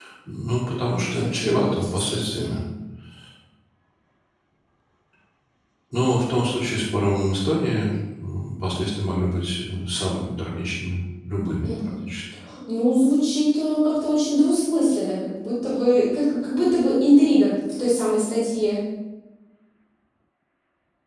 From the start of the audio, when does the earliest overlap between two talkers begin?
1.1 s

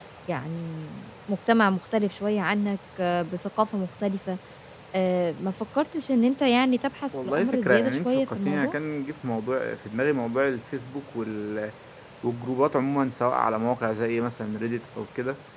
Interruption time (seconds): 7.1 s

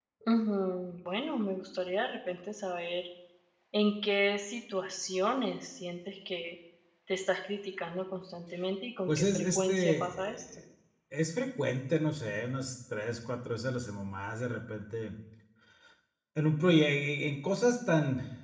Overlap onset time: 9.1 s

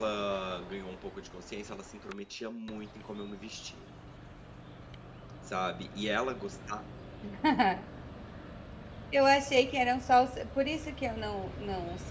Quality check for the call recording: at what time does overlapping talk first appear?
none

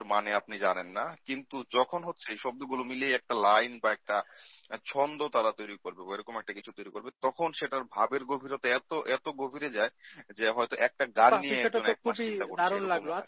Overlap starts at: 11.3 s

